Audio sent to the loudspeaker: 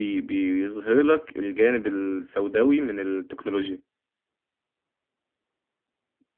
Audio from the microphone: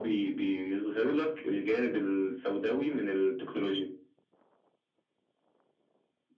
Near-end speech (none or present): none